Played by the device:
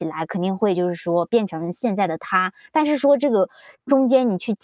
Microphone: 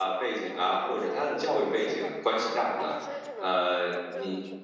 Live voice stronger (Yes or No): Yes